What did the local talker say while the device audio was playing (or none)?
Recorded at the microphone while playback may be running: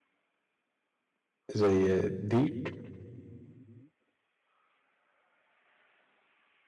زي ديك